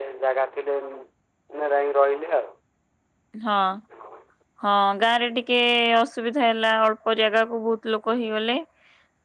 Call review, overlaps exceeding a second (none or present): none